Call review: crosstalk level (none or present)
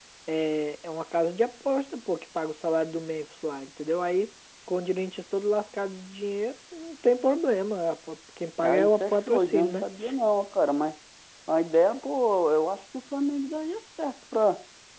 present